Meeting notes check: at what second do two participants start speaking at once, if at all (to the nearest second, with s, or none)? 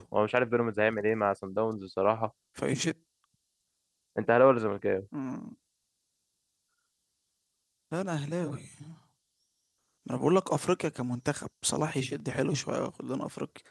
none